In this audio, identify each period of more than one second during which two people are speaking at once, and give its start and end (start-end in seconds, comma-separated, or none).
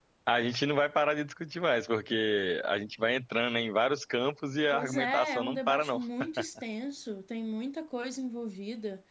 4.7-6.0